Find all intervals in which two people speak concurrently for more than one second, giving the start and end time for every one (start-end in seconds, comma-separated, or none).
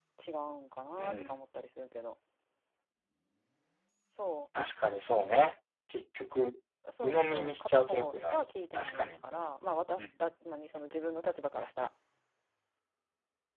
7.0-9.2